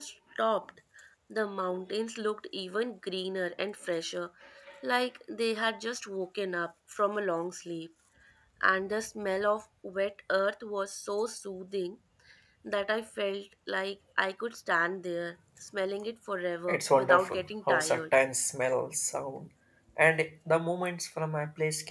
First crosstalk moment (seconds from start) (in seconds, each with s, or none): 16.7 s